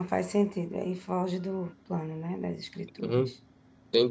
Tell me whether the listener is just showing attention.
No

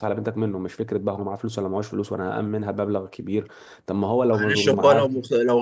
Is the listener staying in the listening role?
No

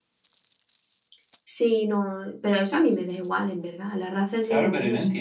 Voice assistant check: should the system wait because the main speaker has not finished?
No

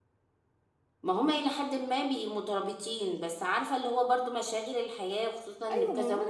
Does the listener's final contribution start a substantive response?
Yes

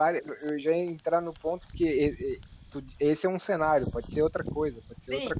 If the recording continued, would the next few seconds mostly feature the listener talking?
Yes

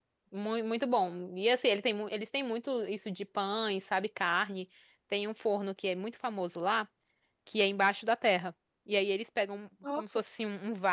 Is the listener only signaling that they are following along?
Yes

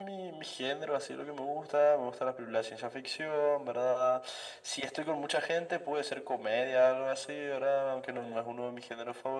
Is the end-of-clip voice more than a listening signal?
No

